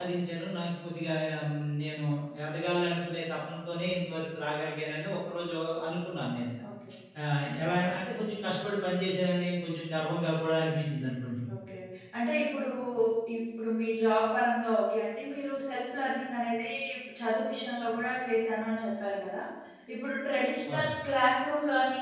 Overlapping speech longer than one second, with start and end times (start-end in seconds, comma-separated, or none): none